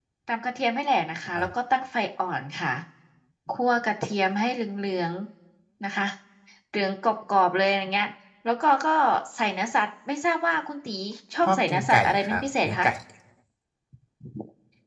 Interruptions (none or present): present